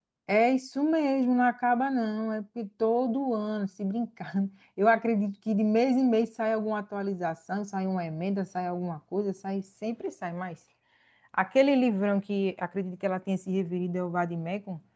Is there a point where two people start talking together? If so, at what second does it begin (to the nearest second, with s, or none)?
none